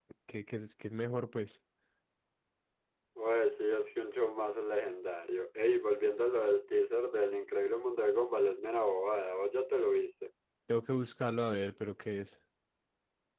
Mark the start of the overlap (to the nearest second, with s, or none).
none